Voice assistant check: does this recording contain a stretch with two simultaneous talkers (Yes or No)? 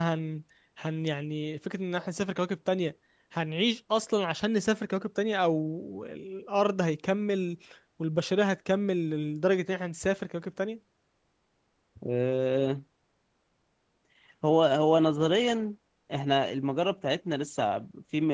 No